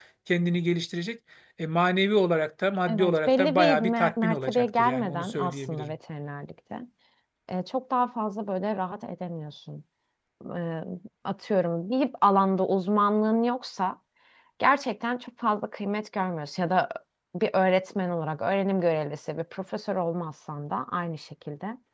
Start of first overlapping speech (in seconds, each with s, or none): 2.9 s